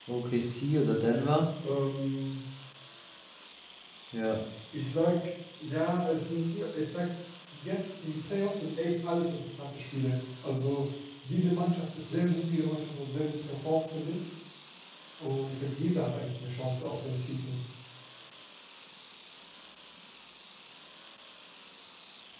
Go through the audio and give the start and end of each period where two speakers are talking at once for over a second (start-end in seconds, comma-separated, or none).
none